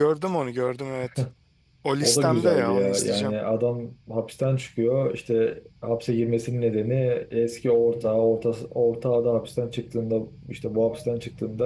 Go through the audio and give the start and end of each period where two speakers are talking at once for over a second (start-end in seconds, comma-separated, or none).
2.0-3.3